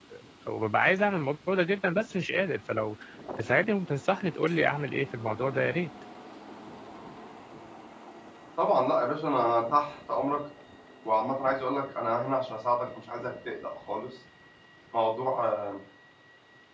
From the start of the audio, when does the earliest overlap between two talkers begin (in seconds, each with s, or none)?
none